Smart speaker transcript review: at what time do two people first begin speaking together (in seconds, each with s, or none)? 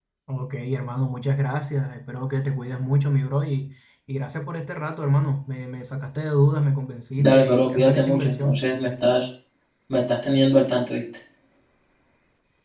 7.2 s